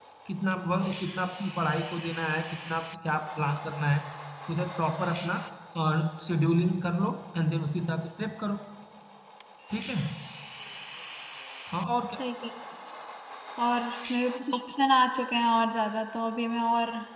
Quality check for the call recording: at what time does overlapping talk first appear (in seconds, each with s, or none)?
none